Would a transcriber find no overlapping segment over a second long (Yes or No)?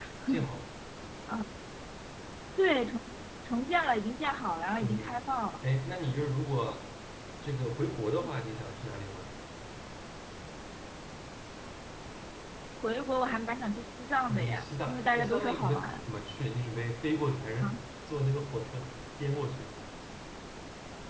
No